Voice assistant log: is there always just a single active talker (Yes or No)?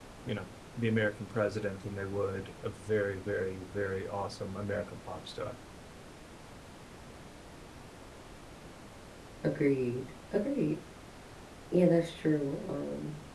Yes